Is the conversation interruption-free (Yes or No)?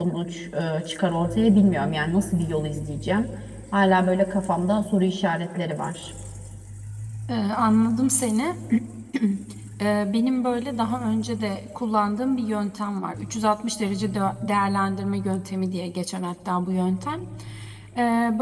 Yes